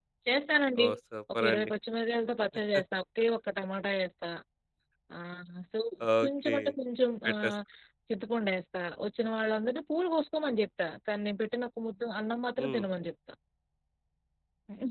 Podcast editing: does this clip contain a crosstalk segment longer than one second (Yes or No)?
No